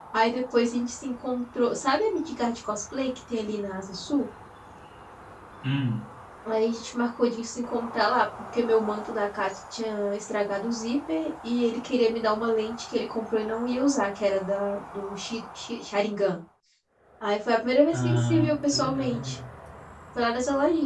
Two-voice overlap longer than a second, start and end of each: 17.9-19.3

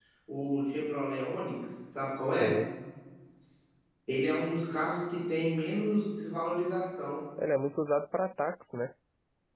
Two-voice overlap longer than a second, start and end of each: none

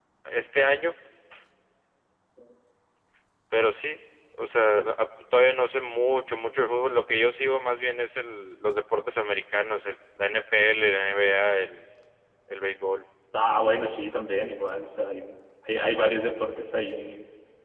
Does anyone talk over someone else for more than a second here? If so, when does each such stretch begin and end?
none

